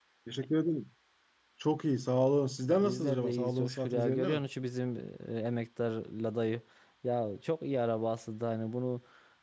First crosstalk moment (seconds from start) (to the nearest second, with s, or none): 3 s